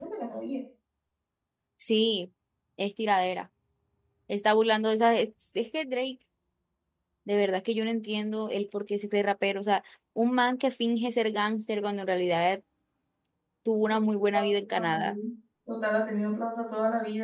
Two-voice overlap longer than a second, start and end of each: none

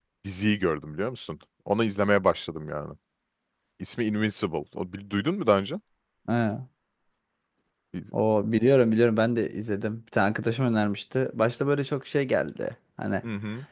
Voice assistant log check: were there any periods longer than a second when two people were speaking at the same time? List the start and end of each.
none

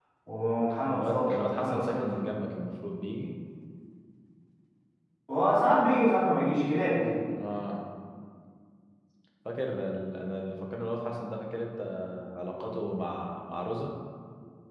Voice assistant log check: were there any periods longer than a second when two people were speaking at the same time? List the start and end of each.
0.9-2.2

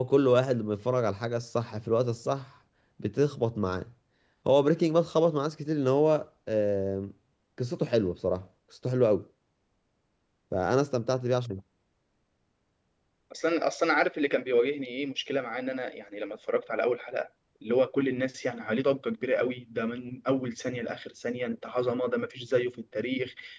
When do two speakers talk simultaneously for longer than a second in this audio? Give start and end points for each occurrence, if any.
none

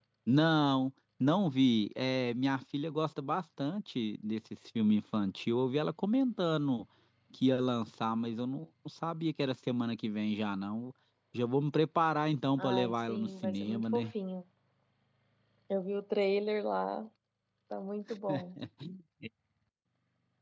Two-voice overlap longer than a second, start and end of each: 12.6-14.1

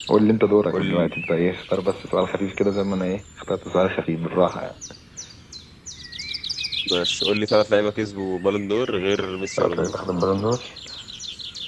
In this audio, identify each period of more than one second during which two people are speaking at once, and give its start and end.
none

